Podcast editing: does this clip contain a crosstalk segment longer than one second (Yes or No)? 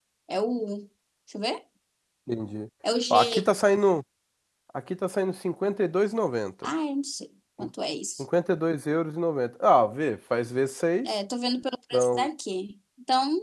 No